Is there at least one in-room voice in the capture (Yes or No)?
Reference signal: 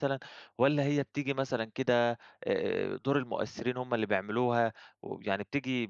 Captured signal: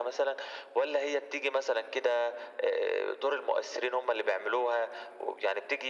No